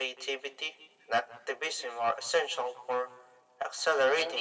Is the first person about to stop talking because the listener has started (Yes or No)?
Yes